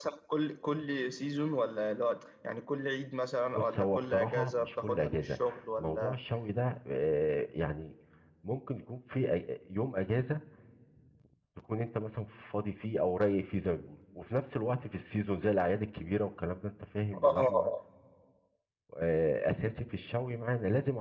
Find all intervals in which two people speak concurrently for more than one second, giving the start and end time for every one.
3.5-5.4

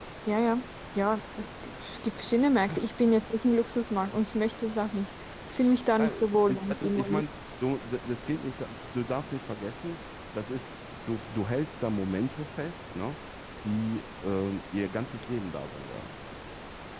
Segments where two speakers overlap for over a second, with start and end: 6.0-7.2

